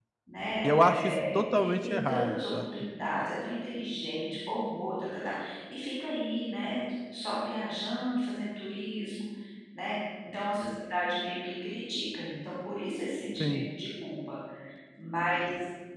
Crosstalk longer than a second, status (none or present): present